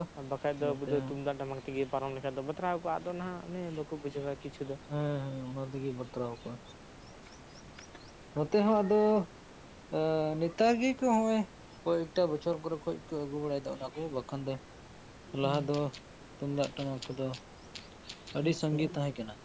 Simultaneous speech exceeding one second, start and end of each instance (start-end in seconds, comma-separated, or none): none